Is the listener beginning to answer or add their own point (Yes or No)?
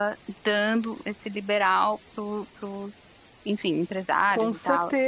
Yes